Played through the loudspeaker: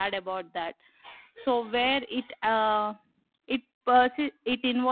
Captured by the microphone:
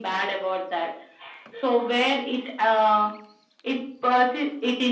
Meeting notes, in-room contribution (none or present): none